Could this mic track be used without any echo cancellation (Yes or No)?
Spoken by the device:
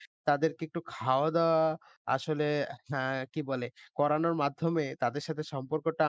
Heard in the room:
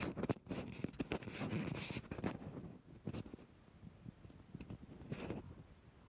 Yes